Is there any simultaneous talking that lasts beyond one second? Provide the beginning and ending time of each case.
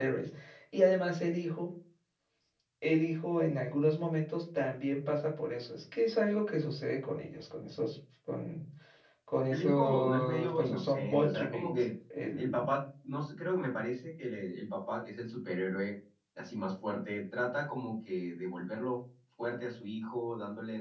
9.5-11.7

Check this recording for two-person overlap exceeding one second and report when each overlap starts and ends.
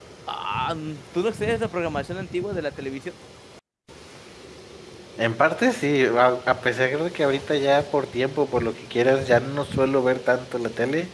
none

